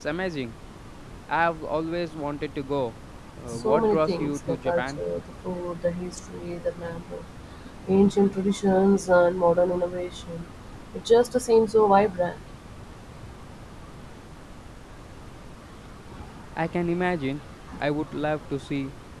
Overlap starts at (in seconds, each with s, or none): 3.5 s